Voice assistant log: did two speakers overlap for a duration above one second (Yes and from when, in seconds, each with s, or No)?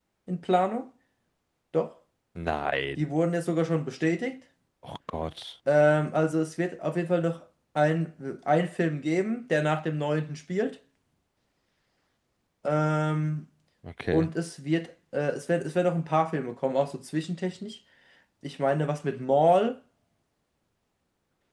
No